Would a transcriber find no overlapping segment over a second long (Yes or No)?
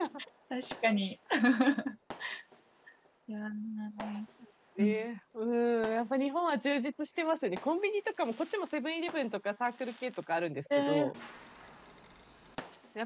Yes